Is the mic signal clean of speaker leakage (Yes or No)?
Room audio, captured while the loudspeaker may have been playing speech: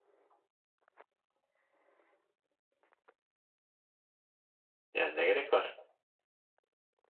Yes